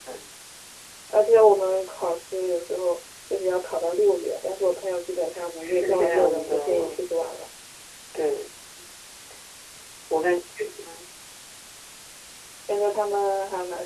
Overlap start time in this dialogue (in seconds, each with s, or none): 5.6 s